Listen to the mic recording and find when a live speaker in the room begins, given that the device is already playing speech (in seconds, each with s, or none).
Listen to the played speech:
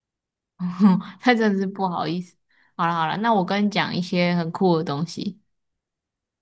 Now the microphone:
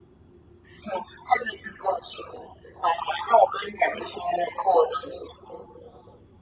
none